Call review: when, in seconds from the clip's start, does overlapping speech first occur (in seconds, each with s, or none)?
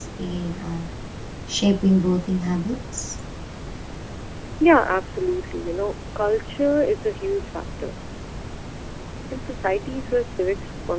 none